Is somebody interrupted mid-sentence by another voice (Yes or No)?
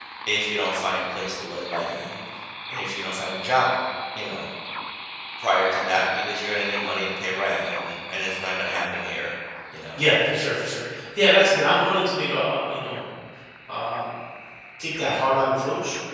No